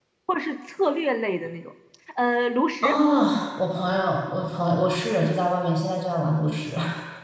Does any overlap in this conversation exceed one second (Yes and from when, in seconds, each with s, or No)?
No